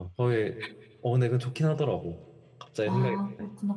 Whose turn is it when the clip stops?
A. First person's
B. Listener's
B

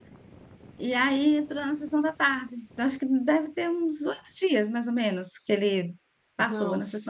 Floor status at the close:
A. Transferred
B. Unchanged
A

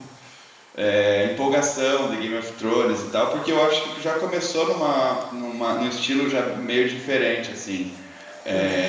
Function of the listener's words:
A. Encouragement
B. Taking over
A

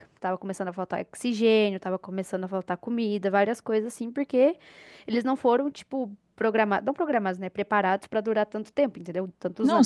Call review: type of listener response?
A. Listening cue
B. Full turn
B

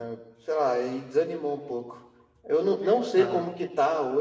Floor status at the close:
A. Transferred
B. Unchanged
B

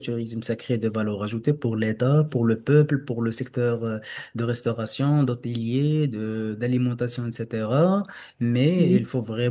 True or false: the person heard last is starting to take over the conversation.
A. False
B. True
A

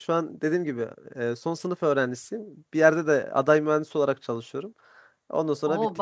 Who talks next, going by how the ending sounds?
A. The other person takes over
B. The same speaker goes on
A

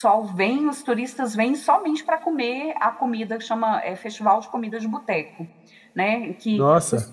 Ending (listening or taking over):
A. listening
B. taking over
A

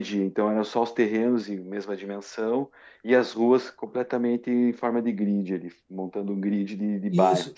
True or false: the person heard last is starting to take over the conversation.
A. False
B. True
B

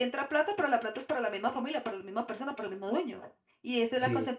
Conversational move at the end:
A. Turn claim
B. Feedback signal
B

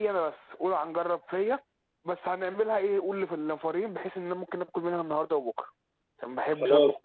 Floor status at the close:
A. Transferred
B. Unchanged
A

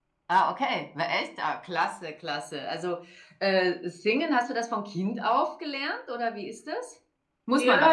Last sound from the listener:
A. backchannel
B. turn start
B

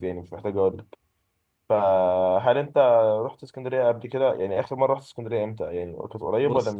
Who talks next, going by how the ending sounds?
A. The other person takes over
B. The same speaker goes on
A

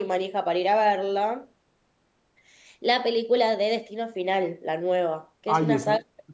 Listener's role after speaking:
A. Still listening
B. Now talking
B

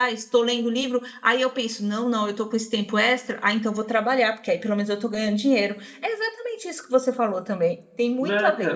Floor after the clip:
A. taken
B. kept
A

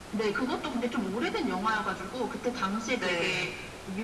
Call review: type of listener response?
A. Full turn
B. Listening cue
B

